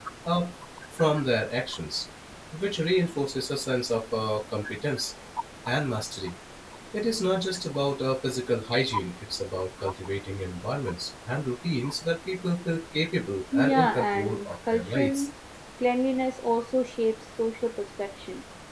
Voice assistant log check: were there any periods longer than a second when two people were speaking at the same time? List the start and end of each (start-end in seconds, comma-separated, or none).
13.5-15.3